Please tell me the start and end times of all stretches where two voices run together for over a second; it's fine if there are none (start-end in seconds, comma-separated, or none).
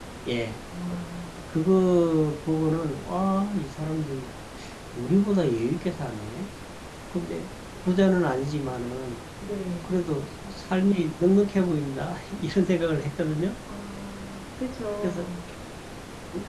none